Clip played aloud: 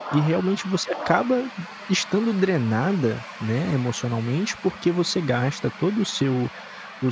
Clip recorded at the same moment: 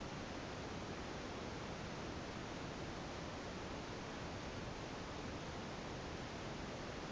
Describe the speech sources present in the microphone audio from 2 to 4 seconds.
neither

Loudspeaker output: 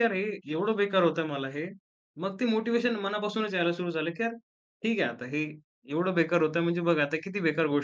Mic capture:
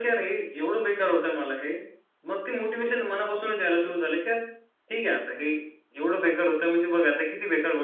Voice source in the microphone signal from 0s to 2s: echo only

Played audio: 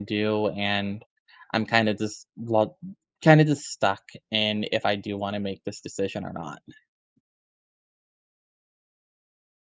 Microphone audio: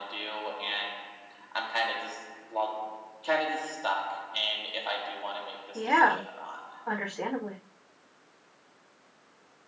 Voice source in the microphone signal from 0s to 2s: echo only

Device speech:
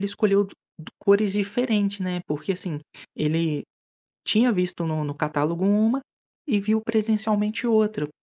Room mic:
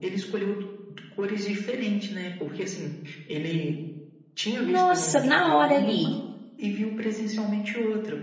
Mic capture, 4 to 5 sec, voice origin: both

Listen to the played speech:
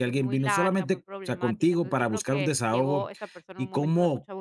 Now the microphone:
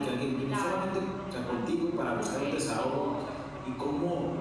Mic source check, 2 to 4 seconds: echo only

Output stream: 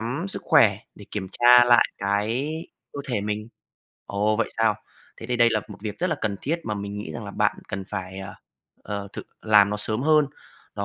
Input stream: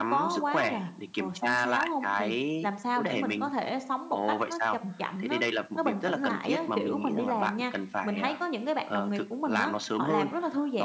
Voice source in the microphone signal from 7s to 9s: both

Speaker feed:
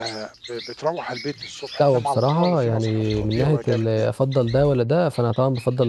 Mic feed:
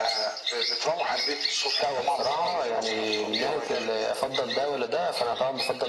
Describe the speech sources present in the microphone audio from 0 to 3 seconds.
echo only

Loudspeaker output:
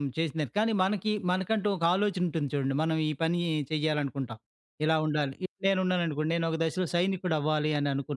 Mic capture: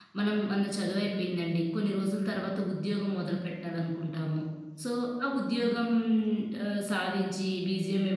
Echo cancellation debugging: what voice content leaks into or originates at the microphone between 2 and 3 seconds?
user only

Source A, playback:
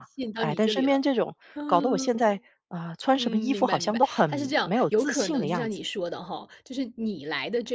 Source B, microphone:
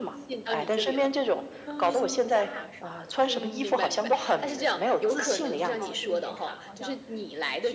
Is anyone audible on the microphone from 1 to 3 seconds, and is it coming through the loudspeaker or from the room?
both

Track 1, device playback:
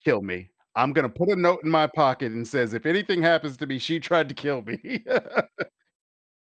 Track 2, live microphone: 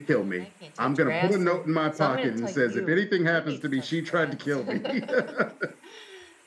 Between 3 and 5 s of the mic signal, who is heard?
both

